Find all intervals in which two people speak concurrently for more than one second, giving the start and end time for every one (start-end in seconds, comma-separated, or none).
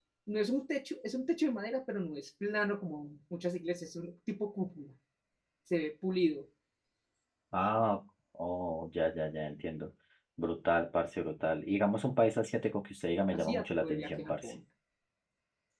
13.3-14.5